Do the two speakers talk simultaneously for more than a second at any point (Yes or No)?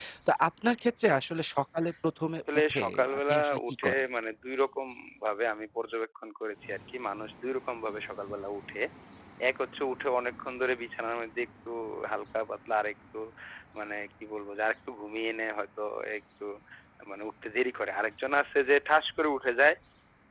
Yes